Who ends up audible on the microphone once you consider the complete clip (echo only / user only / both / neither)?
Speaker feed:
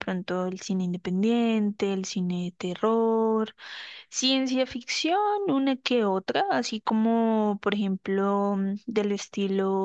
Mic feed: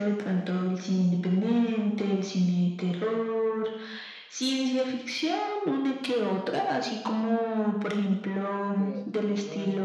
both